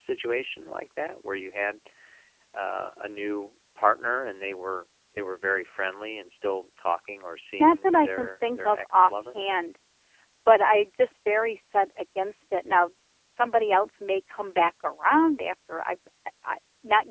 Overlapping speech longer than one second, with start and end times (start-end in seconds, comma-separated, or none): 7.6-9.4